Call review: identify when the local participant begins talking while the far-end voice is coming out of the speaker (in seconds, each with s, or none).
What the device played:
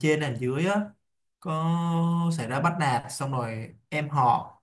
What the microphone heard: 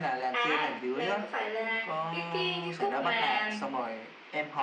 0.3 s